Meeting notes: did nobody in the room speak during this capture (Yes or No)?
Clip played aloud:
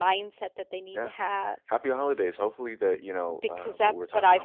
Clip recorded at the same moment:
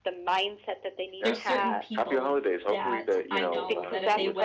No